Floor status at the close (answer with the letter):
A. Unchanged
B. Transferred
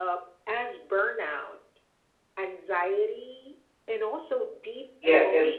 B